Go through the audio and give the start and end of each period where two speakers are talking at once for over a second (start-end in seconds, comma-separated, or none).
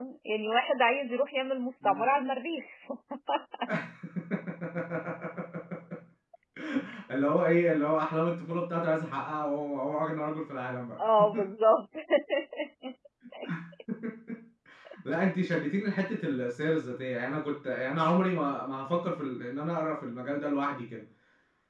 none